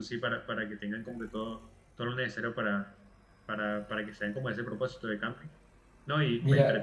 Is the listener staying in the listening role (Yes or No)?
Yes